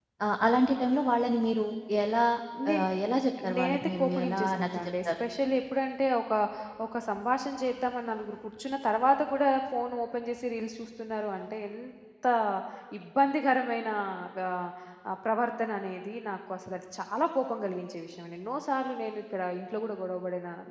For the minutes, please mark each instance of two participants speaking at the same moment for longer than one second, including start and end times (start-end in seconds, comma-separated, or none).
3.6-5.2